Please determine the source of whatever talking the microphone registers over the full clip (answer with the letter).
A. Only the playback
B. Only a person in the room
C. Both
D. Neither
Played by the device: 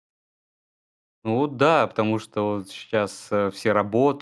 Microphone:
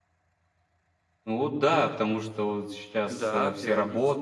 C